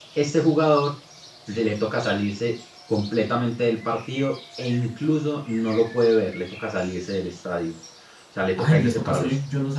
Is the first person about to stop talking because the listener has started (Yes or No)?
Yes